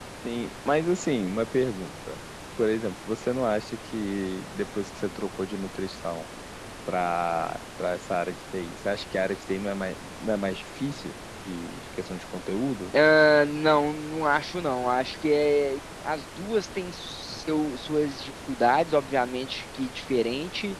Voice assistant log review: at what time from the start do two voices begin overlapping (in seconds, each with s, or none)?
none